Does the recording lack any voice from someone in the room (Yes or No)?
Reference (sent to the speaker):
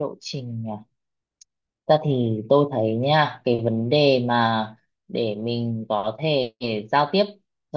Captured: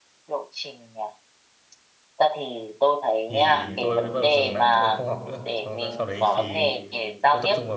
No